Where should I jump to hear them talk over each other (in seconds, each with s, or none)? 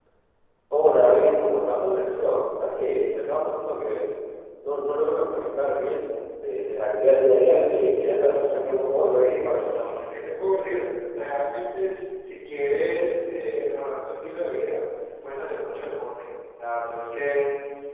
8.0 s